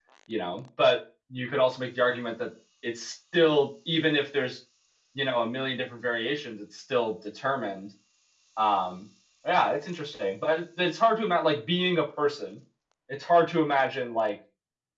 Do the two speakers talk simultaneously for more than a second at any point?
No

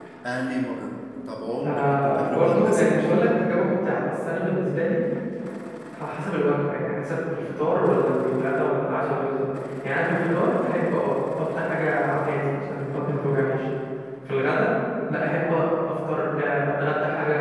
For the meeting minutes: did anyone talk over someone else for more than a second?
Yes, from 1.6 s

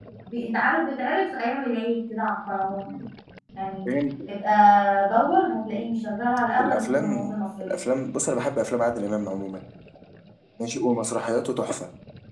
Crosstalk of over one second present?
Yes, from 6.6 s

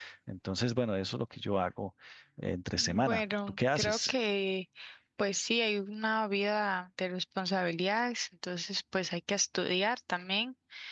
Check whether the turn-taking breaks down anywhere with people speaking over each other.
Yes, from 2.8 s

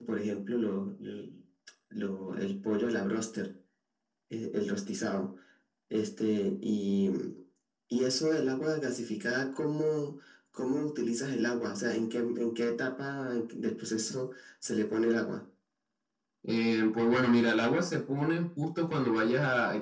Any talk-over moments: No

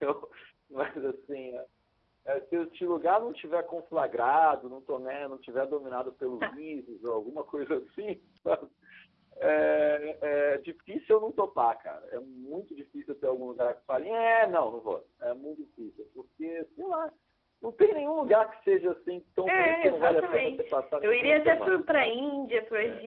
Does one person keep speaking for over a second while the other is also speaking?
Yes, from 19.5 s

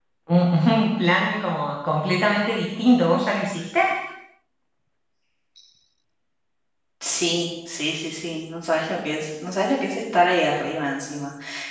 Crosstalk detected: No

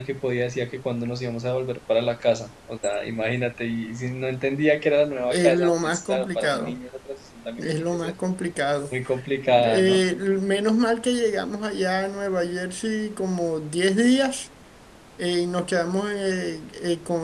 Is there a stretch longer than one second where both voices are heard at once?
Yes, from 5.3 s

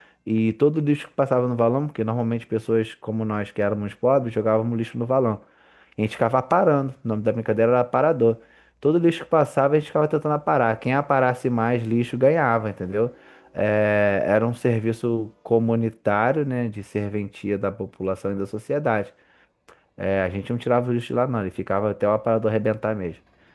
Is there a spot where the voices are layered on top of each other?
No

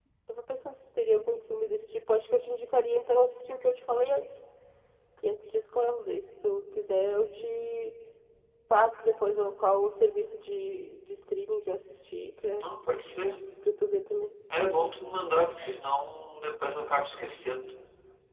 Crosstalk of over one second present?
No

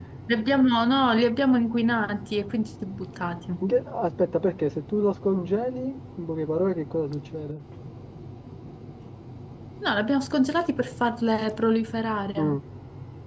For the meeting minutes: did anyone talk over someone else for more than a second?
No

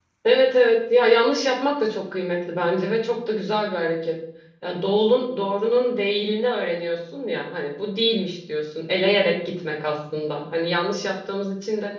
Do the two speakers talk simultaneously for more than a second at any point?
No

